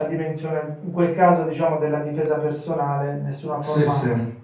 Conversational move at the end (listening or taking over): listening